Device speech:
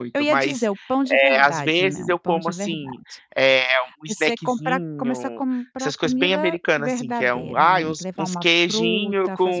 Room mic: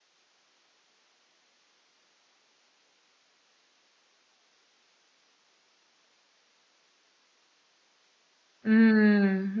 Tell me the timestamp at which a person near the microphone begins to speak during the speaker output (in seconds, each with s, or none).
8.7 s